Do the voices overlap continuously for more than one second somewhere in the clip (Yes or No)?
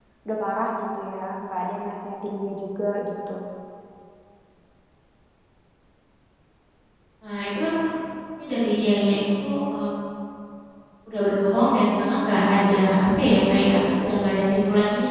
No